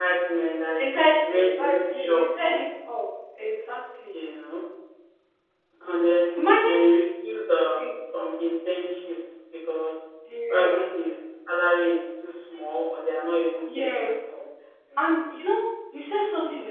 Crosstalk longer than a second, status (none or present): present